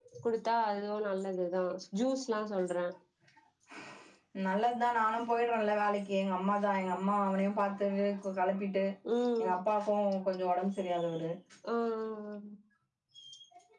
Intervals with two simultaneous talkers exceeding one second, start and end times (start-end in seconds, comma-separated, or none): none